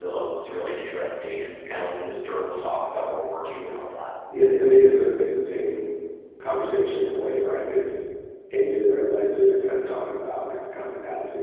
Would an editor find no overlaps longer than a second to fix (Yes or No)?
Yes